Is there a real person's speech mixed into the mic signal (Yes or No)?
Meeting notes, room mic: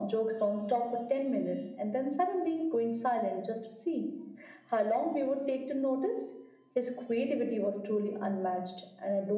No